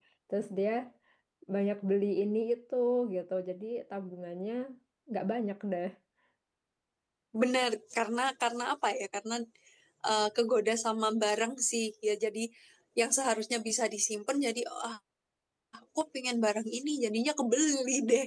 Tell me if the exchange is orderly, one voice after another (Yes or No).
Yes